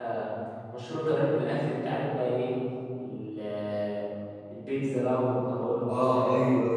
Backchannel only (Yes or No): No